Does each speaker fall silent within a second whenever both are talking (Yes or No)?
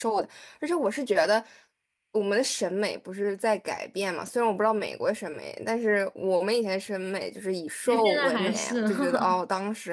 No